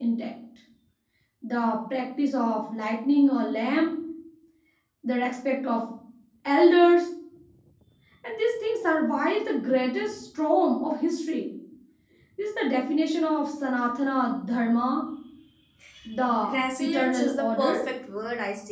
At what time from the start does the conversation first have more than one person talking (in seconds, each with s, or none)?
16.5 s